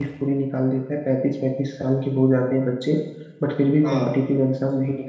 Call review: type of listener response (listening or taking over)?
listening